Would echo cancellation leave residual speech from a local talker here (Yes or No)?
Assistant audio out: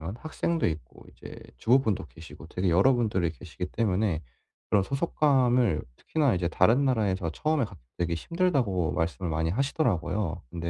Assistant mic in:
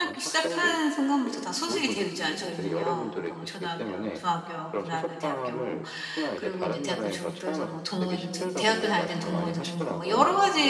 Yes